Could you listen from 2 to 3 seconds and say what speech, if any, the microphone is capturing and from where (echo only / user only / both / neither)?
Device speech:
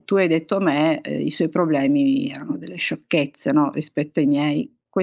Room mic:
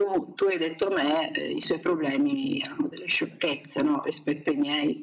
echo only